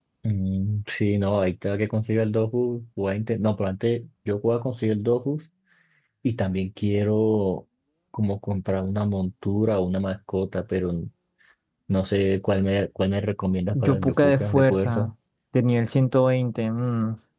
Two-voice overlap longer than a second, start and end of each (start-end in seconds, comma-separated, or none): 13.7-15.1